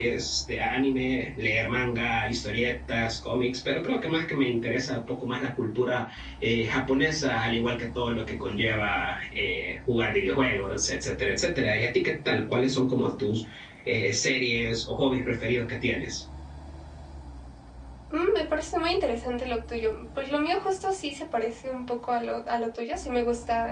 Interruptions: none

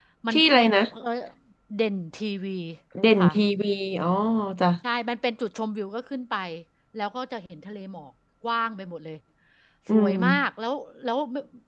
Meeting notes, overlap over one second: none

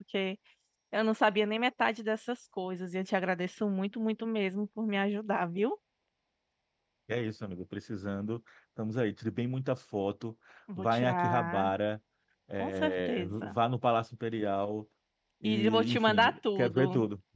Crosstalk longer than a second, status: present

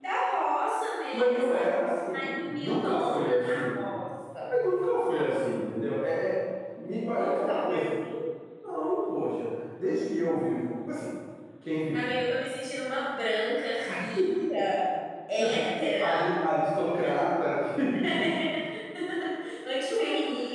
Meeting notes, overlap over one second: present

